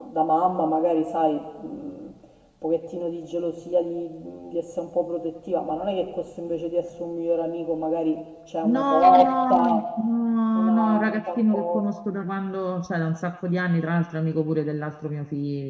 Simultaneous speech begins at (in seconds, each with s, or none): 8.6 s